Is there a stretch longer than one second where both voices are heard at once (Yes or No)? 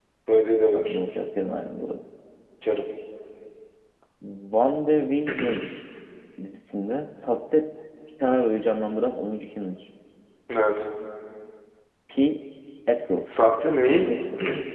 No